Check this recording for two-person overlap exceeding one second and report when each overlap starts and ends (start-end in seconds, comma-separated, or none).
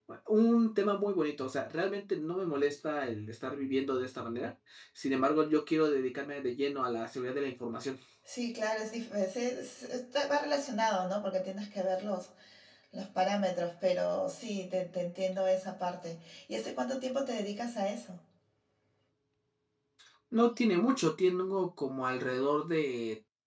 none